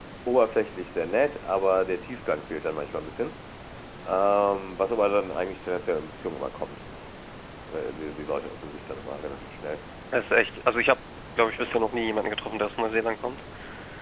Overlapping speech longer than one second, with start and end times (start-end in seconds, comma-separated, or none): none